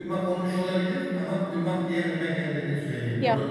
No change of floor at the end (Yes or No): No